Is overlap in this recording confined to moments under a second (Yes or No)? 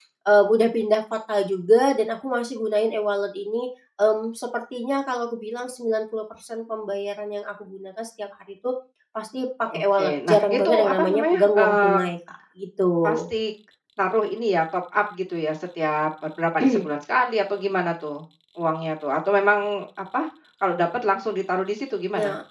No